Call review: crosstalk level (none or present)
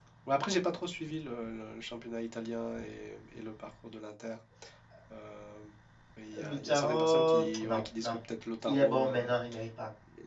present